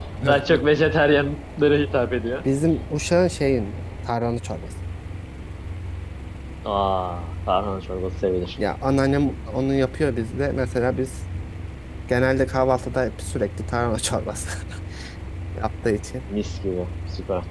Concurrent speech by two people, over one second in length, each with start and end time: none

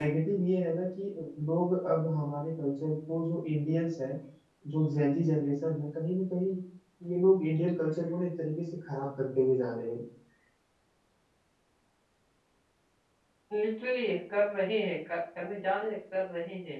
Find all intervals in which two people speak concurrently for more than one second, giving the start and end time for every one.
none

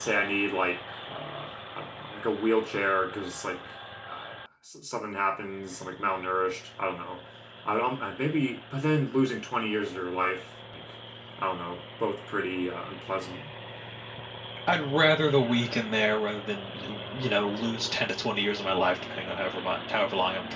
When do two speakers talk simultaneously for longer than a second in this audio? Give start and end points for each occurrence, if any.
none

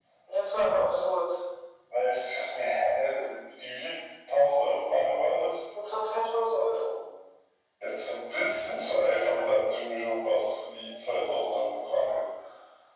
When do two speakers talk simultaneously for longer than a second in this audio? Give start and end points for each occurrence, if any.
none

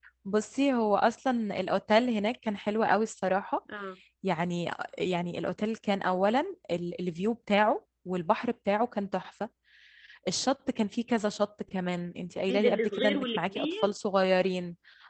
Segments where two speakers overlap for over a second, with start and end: 12.5-13.9

